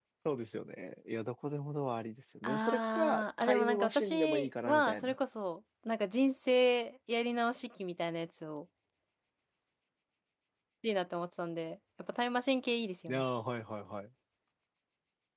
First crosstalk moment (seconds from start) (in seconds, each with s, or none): 2.4 s